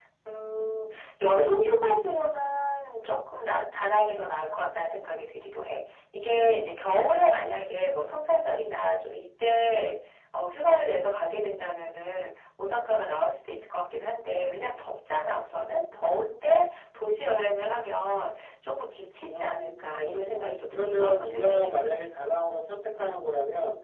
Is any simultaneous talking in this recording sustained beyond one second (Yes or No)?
Yes